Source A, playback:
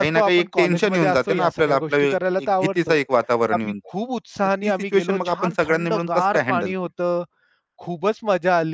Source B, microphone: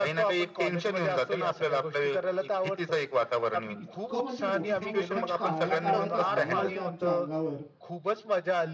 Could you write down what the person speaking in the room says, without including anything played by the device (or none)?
इतकं म्हणजे मोठ्या-मोठ्या काळ्या-काळ्या त्या आळ्या होत्या आमच्या अंगावर.